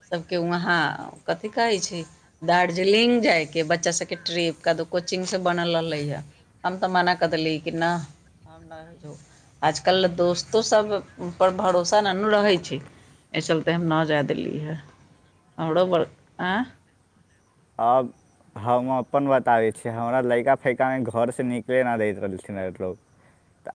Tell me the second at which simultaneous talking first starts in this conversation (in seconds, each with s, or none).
none